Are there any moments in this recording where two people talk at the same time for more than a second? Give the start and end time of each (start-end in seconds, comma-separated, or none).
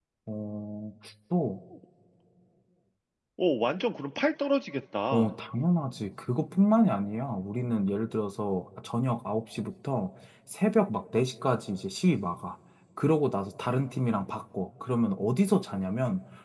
none